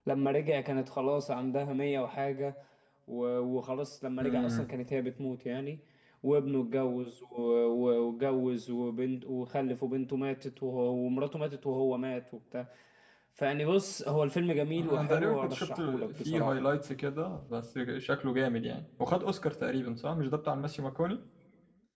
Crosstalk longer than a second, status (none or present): present